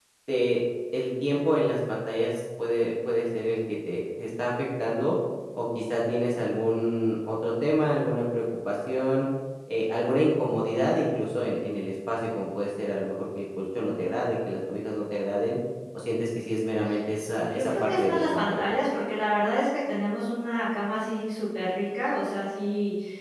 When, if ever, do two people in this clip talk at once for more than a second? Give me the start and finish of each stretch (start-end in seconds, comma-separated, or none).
17.4-18.6